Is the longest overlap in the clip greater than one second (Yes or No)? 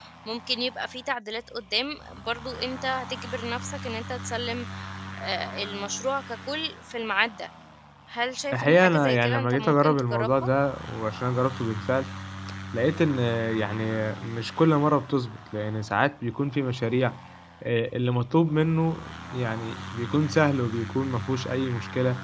Yes